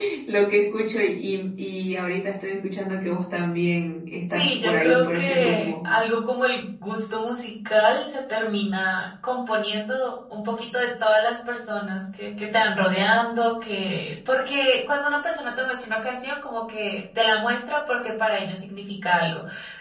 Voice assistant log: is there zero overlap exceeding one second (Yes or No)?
No